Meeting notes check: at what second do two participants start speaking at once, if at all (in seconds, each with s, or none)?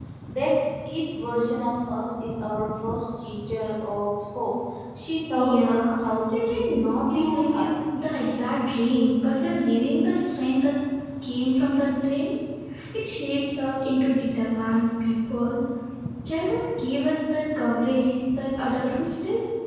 5.3 s